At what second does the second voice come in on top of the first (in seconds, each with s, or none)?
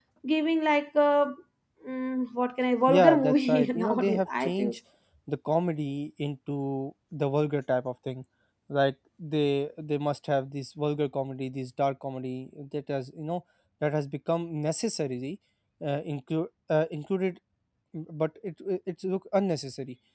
2.9 s